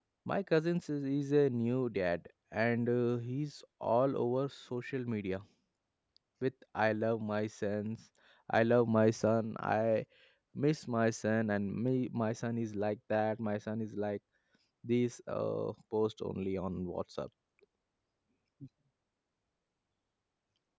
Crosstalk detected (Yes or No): No